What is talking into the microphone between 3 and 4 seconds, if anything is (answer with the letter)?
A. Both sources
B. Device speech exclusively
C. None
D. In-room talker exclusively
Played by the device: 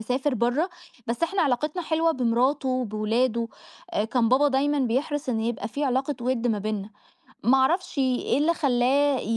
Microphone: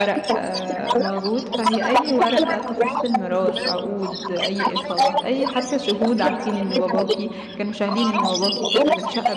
A